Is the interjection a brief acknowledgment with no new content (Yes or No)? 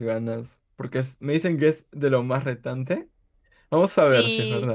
No